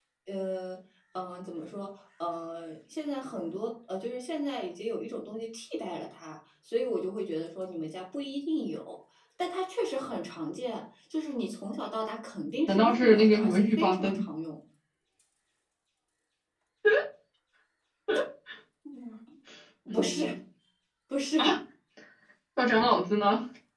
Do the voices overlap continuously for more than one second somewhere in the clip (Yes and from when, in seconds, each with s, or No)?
Yes, from 12.7 s